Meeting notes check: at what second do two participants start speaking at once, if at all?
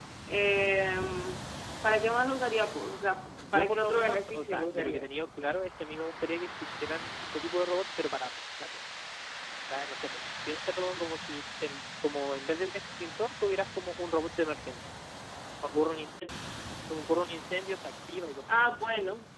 3 s

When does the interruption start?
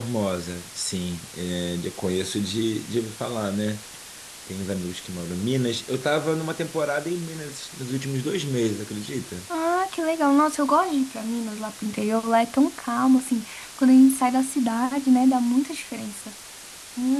none

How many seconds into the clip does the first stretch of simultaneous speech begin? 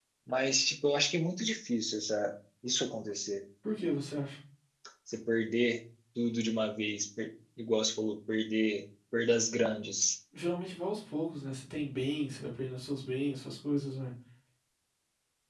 none

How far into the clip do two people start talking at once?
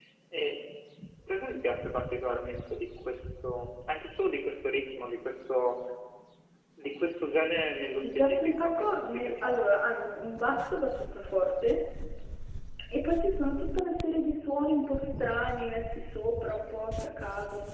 8 s

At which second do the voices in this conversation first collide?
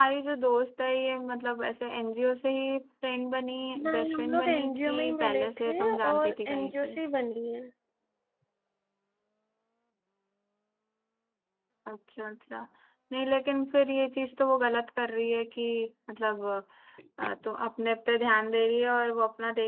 4 s

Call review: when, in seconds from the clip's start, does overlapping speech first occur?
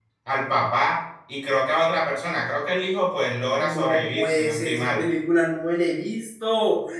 4 s

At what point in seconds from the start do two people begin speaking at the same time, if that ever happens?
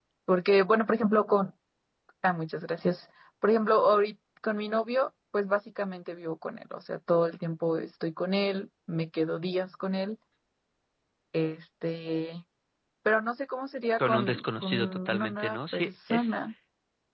14 s

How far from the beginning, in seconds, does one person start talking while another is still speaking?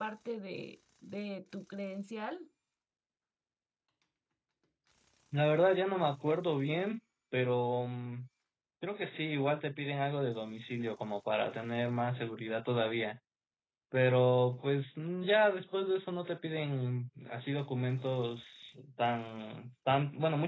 none

